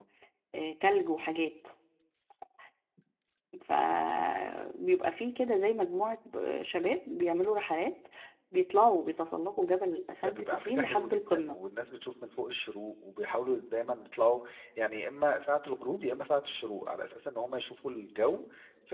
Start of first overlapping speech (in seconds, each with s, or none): 10.2 s